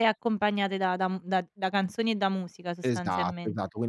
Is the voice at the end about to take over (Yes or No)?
Yes